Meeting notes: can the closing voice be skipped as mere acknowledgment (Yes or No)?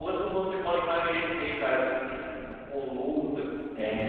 No